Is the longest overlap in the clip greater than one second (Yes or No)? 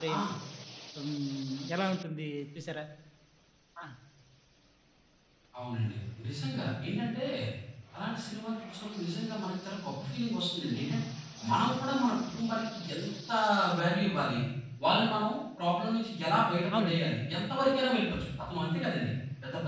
No